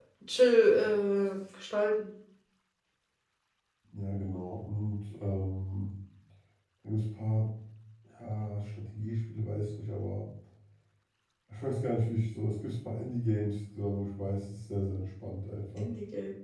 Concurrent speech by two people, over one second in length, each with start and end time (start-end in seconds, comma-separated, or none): none